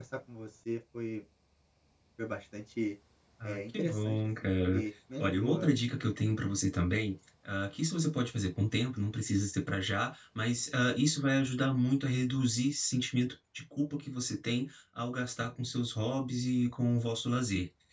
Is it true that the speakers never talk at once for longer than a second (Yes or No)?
No